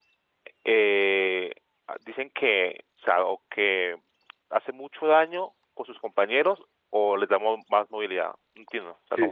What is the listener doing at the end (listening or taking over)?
taking over